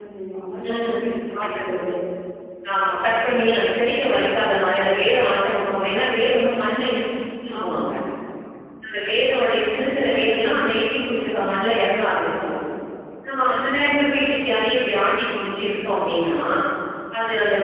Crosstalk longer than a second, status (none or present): none